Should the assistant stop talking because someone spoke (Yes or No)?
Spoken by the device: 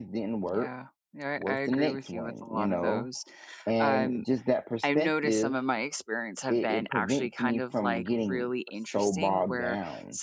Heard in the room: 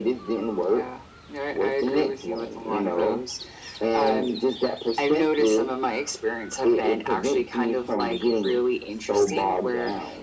No